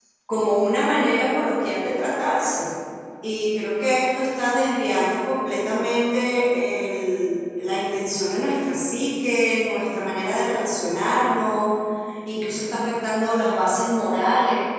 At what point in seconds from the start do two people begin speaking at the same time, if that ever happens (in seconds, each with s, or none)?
none